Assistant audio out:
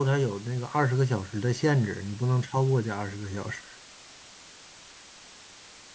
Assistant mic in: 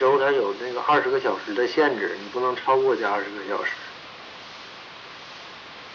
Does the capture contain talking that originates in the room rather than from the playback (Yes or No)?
No